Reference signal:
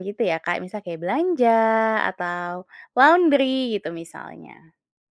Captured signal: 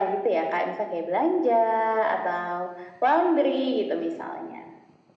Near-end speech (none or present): none